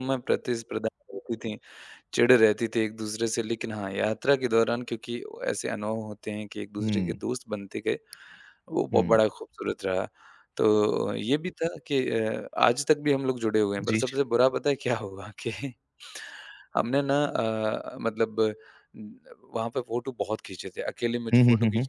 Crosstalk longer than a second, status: none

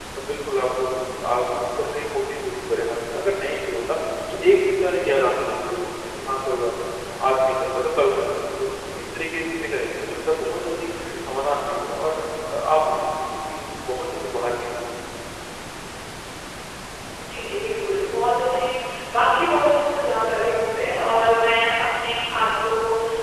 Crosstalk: none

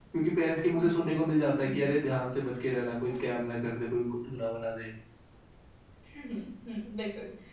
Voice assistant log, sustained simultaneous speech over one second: none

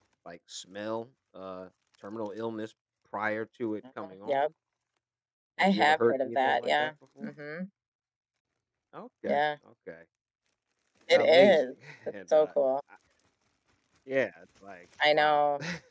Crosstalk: present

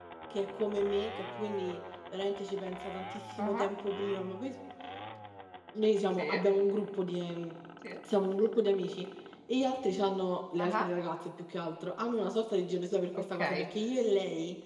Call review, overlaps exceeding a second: none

